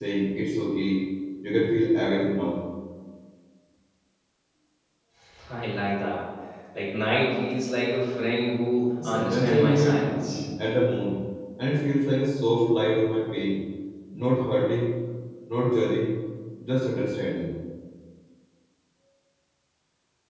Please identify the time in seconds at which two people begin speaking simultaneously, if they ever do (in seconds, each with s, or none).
9.0 s